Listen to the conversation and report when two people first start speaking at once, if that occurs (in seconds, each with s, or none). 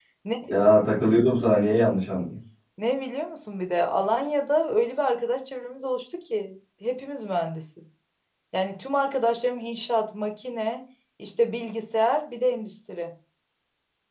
none